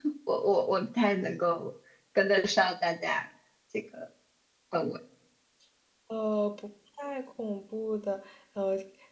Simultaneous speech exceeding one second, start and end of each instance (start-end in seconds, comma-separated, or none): none